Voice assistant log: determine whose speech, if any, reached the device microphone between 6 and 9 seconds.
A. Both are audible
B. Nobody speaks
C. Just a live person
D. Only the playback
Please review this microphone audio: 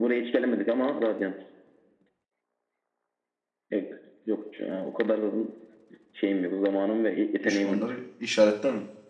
A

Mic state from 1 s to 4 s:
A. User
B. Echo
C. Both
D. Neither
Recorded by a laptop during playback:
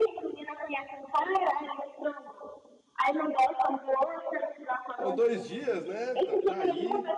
B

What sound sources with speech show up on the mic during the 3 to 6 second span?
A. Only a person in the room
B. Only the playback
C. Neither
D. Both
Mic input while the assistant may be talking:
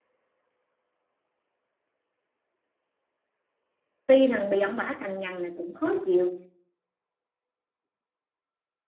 A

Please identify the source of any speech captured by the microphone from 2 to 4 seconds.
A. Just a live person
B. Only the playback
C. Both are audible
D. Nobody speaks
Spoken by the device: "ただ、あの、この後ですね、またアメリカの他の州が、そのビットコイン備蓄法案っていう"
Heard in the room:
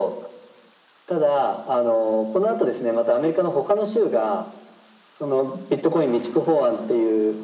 B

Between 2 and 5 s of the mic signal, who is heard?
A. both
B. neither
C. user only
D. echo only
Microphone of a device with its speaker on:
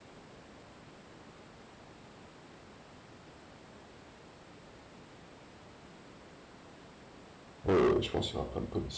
B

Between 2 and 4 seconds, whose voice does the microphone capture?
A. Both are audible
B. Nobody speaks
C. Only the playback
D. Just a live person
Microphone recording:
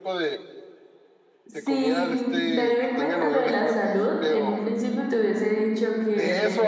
A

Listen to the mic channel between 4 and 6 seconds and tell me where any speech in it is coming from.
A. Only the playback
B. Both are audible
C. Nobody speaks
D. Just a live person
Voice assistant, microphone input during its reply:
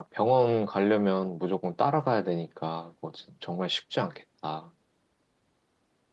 D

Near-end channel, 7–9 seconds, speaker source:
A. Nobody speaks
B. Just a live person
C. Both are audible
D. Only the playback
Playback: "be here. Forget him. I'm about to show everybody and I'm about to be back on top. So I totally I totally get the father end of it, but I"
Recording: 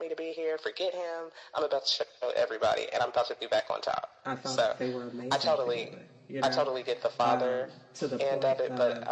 C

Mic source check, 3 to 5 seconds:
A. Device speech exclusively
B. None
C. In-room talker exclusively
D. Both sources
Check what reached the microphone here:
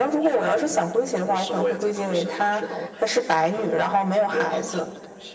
A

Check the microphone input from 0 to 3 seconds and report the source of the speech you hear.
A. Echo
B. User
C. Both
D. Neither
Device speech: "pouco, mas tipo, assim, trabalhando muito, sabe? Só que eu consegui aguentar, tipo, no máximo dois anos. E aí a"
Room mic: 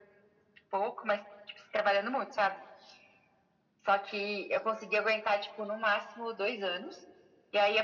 A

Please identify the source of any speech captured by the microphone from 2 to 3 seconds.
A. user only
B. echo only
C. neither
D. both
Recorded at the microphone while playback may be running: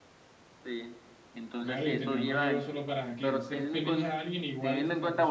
D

